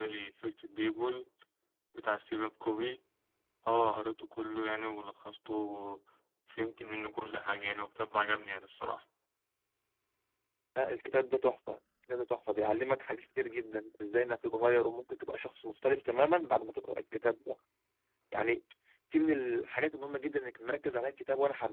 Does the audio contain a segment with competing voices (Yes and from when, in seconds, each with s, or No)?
No